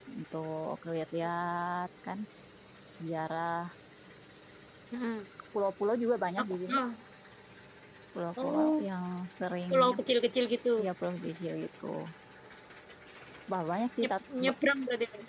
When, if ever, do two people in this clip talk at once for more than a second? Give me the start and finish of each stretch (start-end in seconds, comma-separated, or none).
none